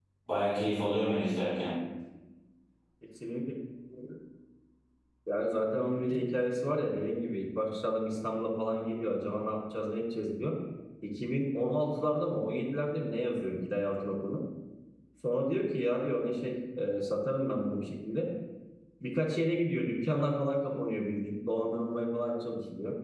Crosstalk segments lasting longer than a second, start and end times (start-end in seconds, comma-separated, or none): none